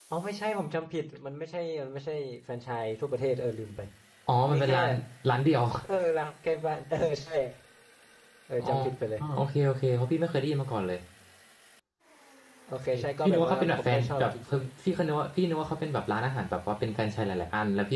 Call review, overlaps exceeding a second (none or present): present